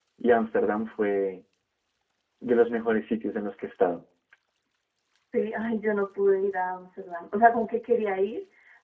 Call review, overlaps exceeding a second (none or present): none